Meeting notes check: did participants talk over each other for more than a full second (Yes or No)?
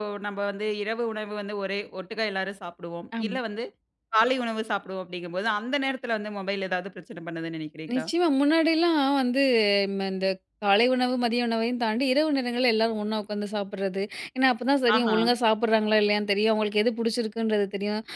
No